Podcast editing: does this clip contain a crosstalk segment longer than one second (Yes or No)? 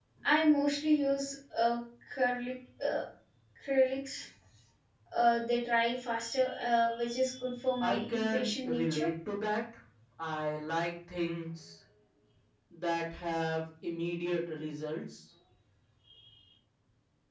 Yes